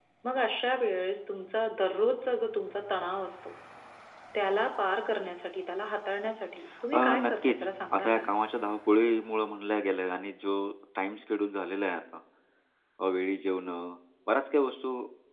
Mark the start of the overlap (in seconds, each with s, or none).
6.9 s